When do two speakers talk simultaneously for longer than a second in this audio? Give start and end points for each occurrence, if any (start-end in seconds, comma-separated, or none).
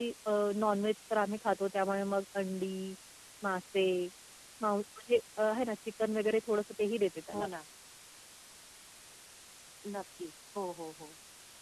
none